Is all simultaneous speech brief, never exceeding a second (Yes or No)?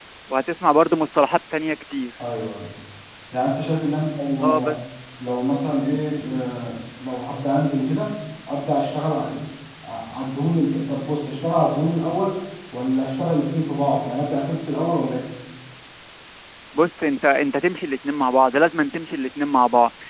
Yes